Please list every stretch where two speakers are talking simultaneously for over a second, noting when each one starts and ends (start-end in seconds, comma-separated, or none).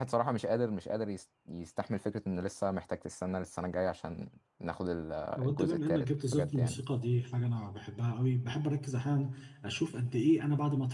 5.4-6.8